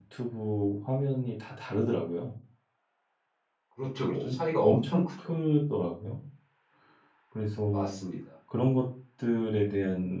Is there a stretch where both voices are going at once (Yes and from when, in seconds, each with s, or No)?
Yes, from 4.1 s